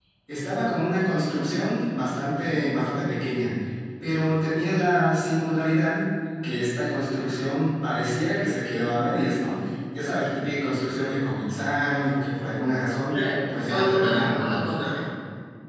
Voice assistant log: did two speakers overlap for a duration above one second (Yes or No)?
Yes